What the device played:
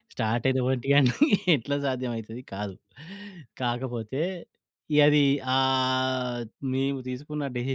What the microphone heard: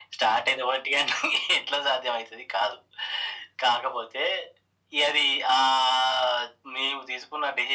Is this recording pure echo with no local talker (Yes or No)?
Yes